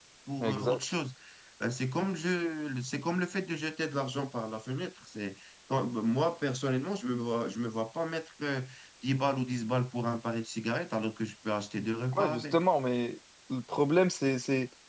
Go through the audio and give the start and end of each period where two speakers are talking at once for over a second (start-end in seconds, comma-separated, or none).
none